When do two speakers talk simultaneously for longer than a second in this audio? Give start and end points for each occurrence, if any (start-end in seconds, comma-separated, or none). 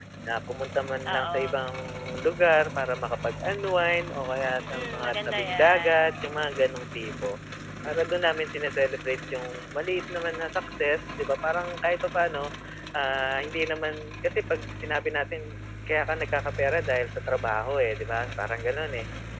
4.6-6.4